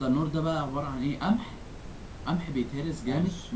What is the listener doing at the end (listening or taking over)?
listening